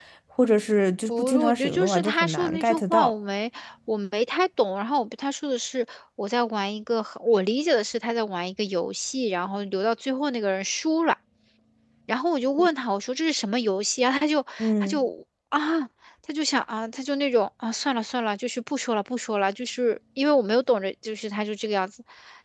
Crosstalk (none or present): present